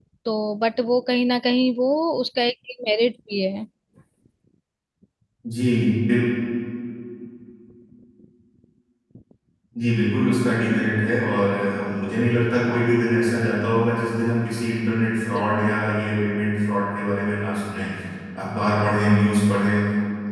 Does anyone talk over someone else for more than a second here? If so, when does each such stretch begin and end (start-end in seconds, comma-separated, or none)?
none